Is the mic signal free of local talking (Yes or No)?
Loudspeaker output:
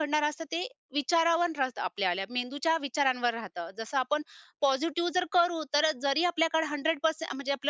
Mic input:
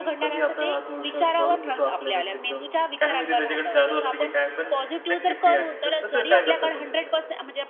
No